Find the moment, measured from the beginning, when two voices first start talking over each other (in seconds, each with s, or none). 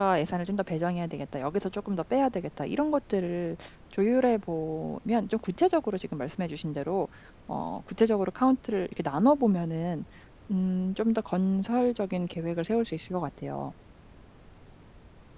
none